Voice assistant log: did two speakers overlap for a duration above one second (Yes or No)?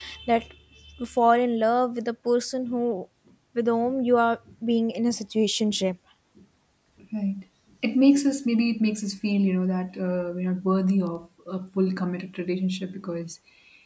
No